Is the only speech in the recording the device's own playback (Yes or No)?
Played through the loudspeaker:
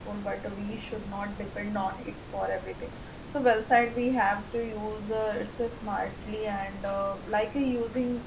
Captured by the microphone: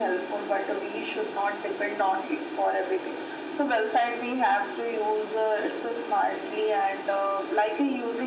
Yes